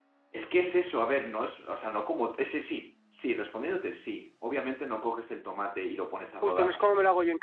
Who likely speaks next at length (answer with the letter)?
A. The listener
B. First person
A